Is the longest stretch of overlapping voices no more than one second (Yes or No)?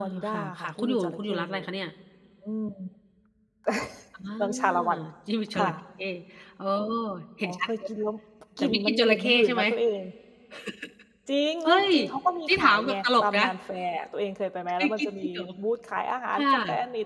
No